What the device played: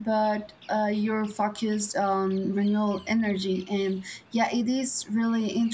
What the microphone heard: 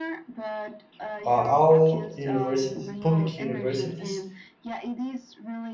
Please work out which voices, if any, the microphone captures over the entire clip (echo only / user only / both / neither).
both